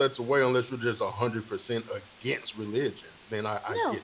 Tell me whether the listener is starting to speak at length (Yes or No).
Yes